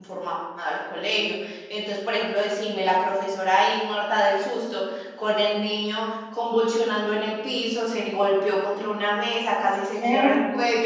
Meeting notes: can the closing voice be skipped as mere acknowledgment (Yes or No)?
Yes